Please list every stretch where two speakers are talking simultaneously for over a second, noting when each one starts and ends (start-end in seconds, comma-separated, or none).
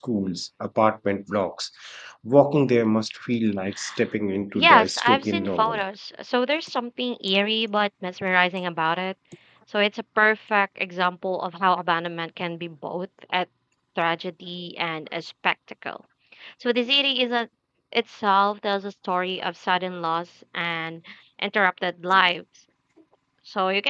4.5-5.8